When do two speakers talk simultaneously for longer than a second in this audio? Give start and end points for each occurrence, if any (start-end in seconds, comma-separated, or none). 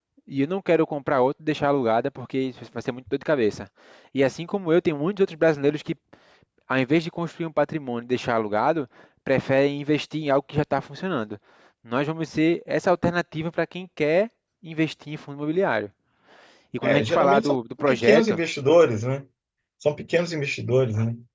16.8-18.4